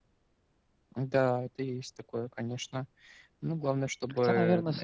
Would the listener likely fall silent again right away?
No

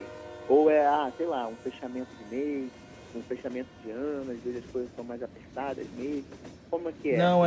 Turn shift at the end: Yes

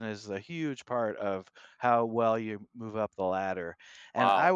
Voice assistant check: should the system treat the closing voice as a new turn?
Yes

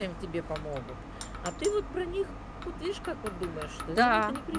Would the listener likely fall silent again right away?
No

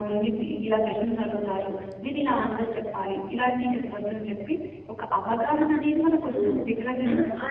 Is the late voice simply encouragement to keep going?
No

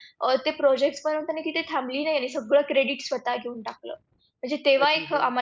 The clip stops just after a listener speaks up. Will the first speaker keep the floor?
Yes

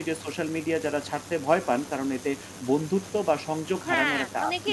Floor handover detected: Yes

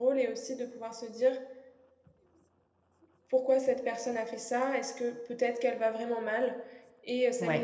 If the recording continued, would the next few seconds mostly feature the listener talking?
No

